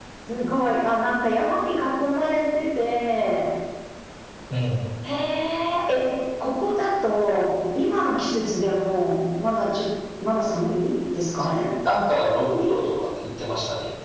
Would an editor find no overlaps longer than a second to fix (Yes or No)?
Yes